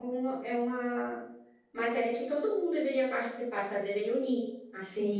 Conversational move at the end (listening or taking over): taking over